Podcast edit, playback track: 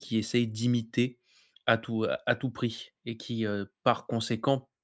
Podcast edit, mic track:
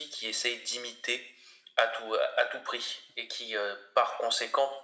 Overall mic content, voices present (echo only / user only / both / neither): echo only